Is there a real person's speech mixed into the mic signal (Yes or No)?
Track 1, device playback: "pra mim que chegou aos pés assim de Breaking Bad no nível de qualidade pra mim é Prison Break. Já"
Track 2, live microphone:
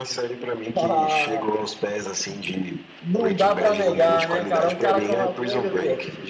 Yes